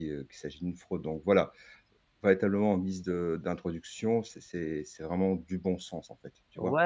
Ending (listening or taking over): taking over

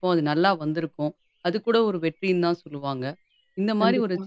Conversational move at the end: listening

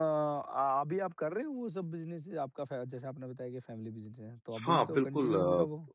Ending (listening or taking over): taking over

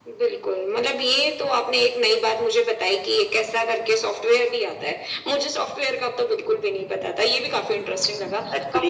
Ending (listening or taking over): taking over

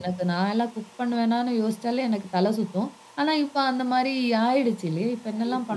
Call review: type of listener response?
taking over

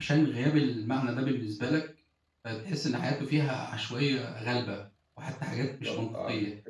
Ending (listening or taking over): taking over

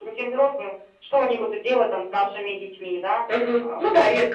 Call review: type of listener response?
taking over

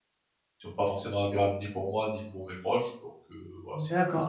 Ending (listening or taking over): taking over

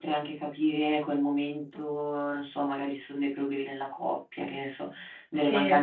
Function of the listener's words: listening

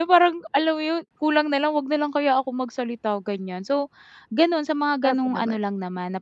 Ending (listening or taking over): listening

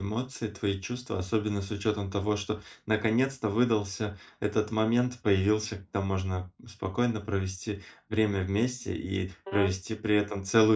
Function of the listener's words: listening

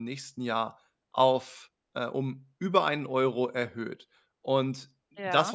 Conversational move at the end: listening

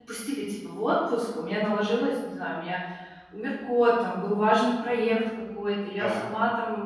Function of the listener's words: listening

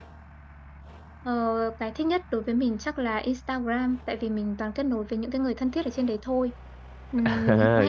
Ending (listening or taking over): taking over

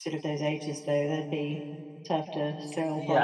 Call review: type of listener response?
taking over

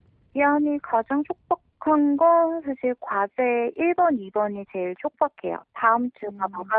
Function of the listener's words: listening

